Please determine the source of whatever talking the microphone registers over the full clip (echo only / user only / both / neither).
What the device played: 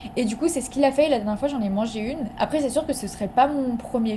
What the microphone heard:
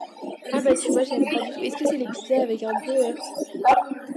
both